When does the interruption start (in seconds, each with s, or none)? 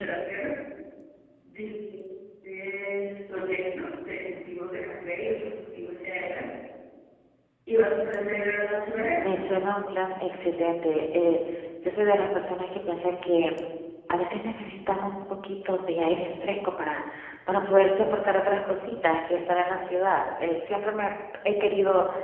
none